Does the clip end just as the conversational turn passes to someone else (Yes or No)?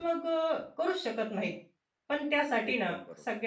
No